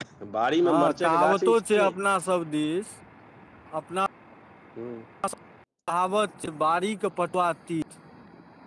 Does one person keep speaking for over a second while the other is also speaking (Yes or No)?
Yes